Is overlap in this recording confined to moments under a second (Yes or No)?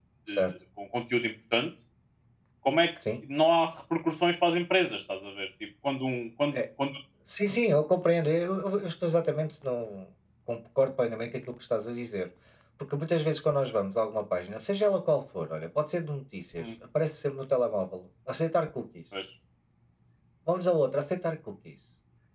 Yes